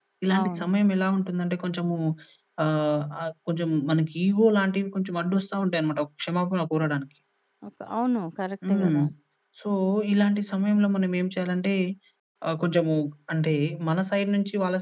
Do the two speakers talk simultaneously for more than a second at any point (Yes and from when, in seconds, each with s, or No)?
No